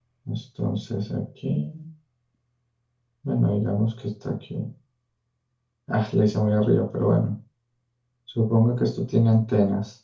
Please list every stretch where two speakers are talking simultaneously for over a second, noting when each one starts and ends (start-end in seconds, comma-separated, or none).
none